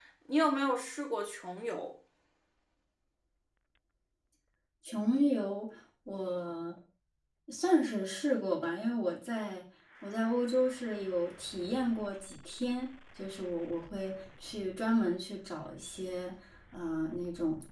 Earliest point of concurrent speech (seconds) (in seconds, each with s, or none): none